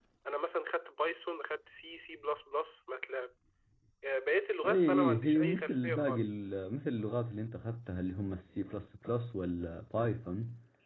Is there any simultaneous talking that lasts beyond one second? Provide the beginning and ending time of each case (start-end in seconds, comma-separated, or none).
4.6-6.2